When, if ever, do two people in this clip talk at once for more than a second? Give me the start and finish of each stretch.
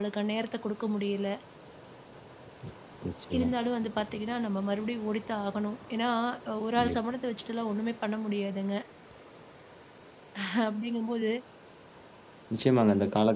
none

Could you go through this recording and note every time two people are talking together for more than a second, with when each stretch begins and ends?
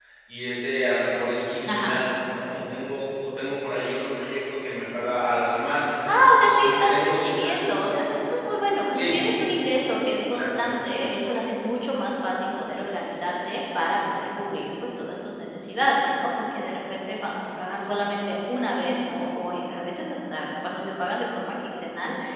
6.3-7.6

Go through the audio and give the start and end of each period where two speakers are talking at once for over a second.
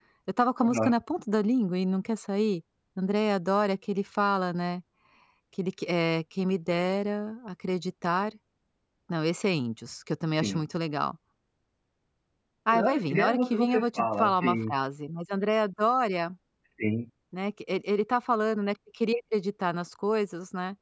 12.7-14.7

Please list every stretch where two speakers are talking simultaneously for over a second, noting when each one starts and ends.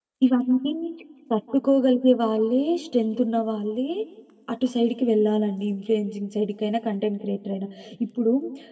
none

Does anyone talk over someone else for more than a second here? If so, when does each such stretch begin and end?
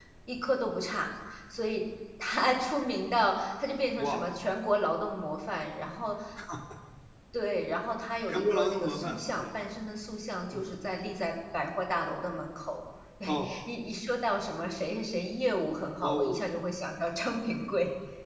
8.3-9.6

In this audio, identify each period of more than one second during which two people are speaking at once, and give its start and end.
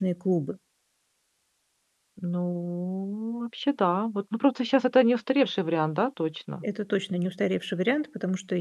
none

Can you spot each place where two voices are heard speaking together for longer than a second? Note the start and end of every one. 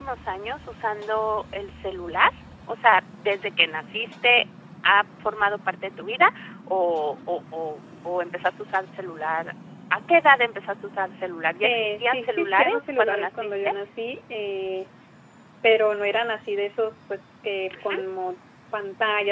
11.6-13.7

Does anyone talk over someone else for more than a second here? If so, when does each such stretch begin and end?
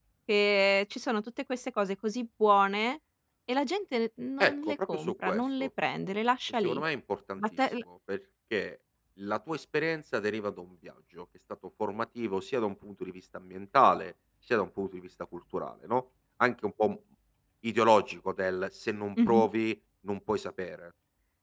4.4-5.7

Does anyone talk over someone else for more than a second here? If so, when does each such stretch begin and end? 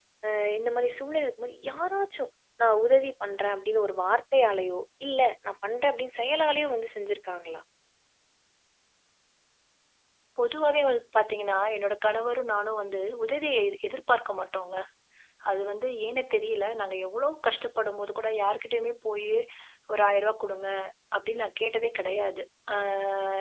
none

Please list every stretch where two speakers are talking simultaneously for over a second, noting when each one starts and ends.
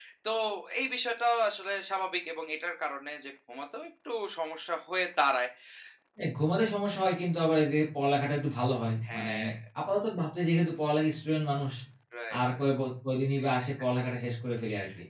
none

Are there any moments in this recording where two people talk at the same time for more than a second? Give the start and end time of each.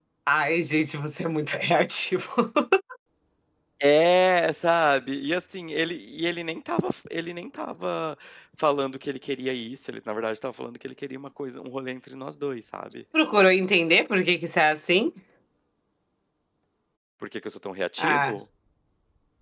none

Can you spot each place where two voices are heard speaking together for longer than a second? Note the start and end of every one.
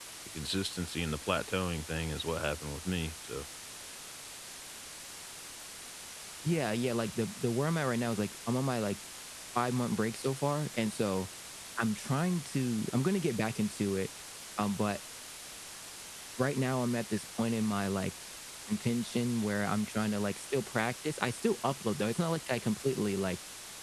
none

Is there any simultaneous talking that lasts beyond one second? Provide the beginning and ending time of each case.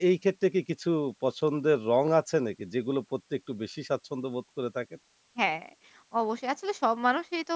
none

